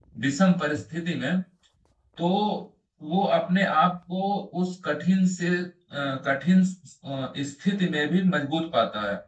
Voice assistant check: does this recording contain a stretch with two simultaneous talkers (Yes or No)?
No